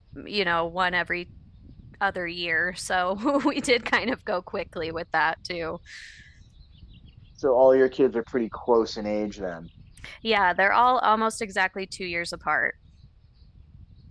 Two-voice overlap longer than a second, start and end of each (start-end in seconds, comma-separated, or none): none